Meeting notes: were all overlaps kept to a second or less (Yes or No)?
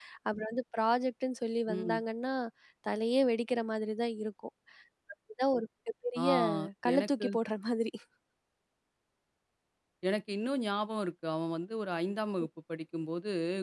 Yes